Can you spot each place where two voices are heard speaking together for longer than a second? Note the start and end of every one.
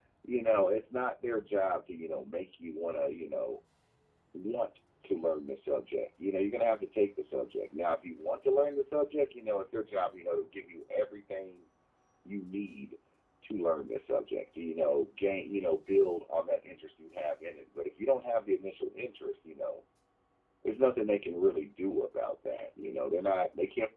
none

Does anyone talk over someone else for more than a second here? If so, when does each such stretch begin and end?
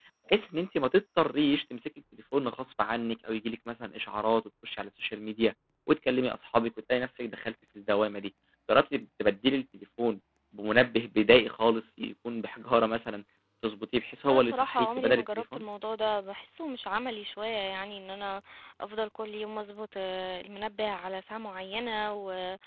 14.2-15.6

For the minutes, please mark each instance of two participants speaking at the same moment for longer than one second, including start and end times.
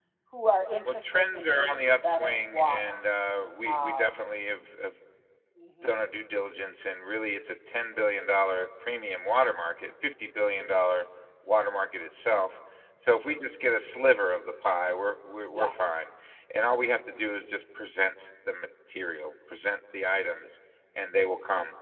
0.8-3.0

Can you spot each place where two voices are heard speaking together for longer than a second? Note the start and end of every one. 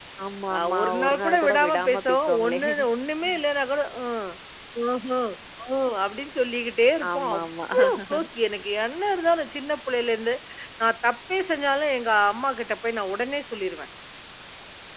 0.6-2.6

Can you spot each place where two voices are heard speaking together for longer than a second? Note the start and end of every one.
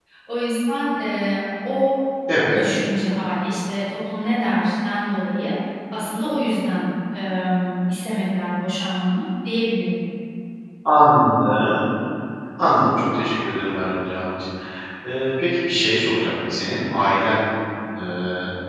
none

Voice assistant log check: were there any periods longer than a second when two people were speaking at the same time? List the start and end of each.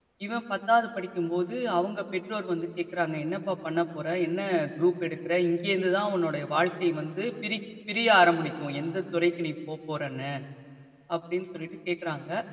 none

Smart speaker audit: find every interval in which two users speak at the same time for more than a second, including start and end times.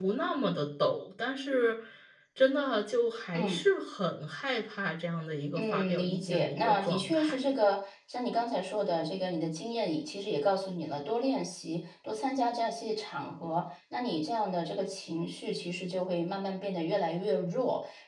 5.5-7.3

